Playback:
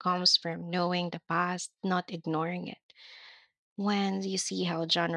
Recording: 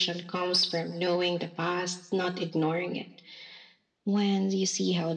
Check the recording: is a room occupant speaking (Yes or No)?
No